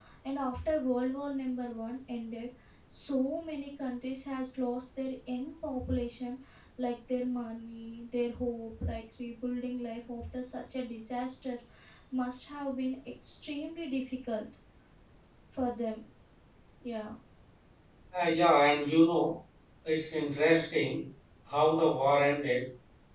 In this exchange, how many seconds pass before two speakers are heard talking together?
none

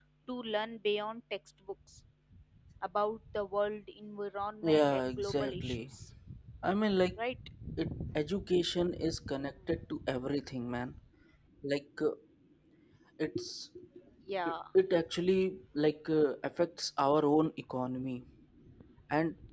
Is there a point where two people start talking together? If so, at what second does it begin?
4.6 s

